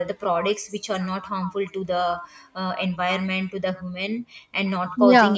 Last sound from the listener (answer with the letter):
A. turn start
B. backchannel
B